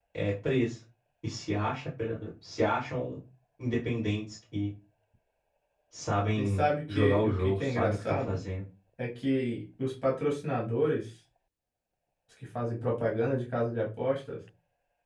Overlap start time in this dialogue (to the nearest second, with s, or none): 6 s